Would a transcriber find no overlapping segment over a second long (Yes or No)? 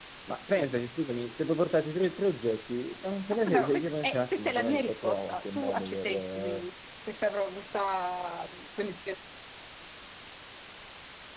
No